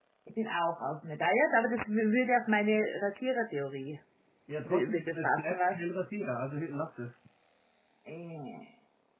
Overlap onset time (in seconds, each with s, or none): 4.6 s